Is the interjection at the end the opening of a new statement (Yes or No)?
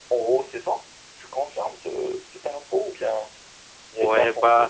Yes